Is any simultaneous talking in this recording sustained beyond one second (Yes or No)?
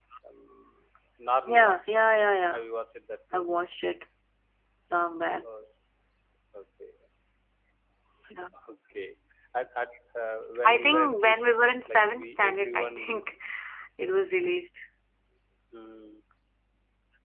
Yes